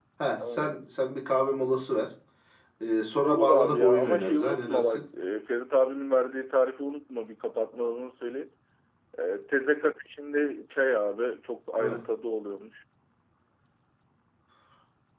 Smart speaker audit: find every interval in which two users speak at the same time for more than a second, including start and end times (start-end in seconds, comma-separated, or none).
3.2-5.0